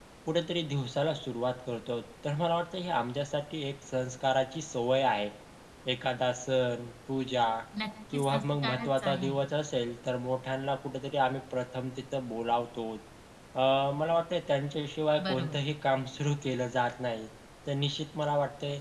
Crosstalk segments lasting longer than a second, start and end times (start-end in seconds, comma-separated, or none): 8.1-9.4